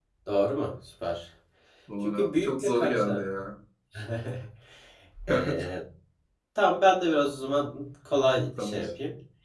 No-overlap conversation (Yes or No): No